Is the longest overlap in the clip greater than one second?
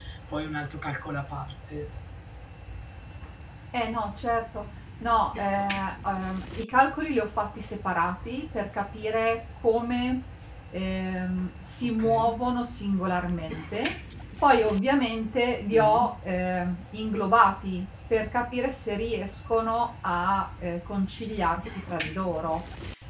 No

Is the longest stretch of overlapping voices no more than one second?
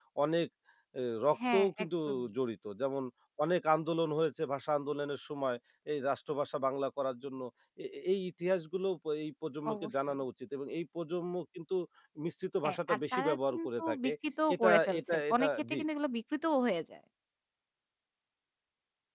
No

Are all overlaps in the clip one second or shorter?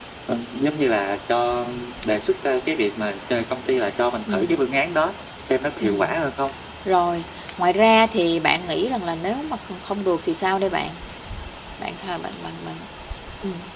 Yes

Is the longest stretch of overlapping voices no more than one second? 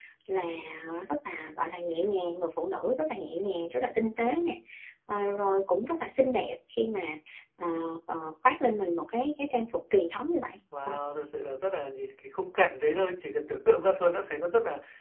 Yes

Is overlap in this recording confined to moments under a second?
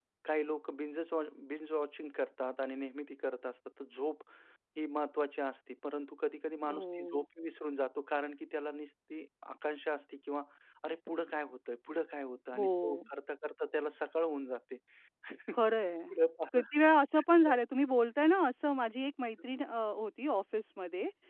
Yes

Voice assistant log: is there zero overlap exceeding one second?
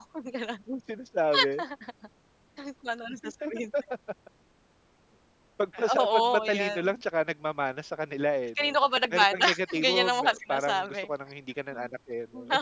No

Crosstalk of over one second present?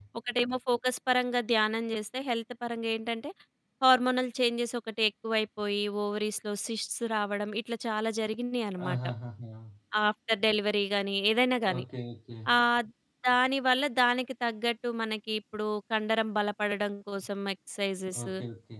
No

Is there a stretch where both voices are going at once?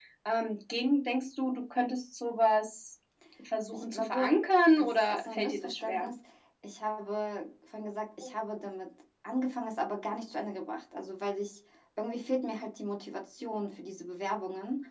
Yes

